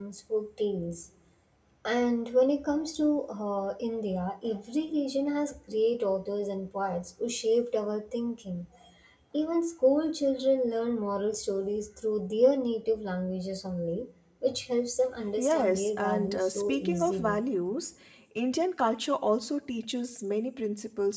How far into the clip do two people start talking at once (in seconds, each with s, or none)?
15.4 s